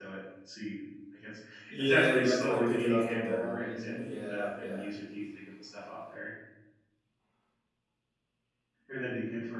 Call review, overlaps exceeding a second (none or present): present